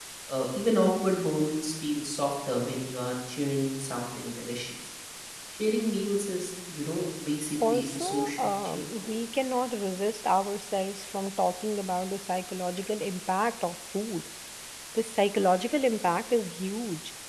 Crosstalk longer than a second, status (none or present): present